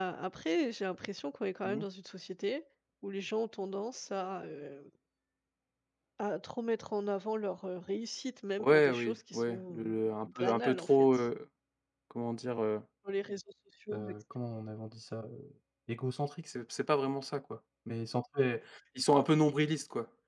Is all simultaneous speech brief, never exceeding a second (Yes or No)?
No